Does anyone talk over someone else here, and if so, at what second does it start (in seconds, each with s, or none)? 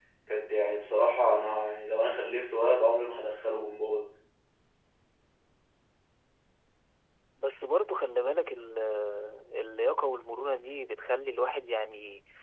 none